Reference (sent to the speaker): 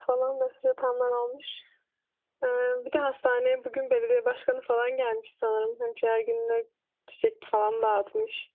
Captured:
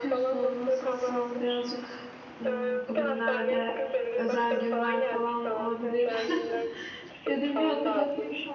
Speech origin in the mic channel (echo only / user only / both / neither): both